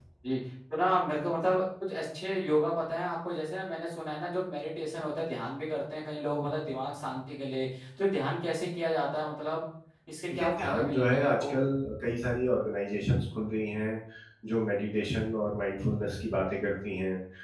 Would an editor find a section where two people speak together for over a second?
Yes, from 10.3 s

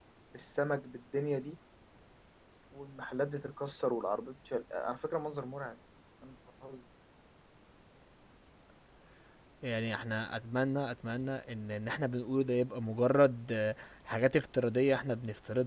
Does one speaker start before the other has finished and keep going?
No

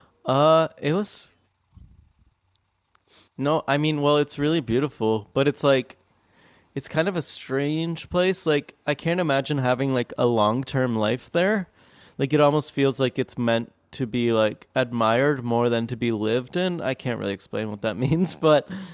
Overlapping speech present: No

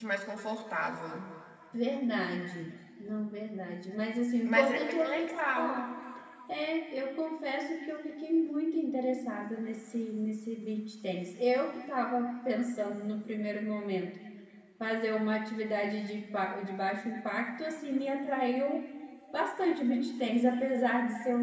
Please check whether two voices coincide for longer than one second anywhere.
Yes, from 4.5 s

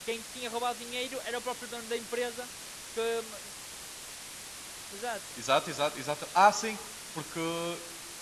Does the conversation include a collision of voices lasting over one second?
No

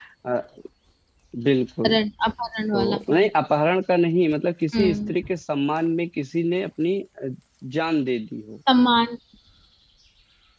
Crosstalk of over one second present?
No

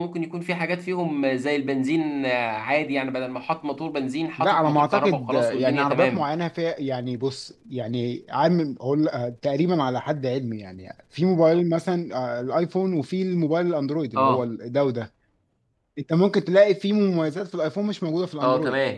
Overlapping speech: Yes, from 4.4 s

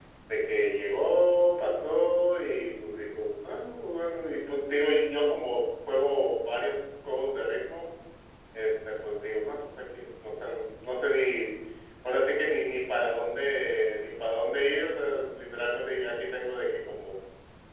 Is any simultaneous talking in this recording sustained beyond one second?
No

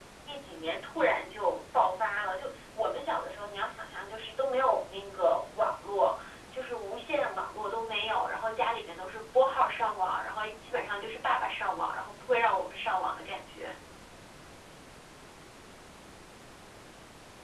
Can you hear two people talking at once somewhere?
No

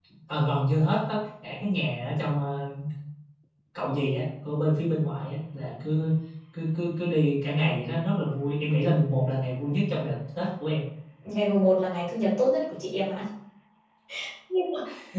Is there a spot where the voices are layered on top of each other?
No

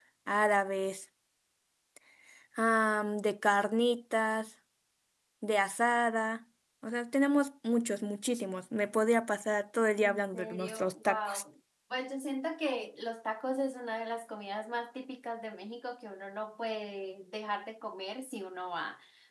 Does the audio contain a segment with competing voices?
Yes, from 10.0 s

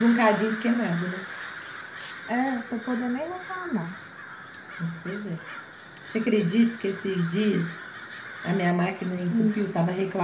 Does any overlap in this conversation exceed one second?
No

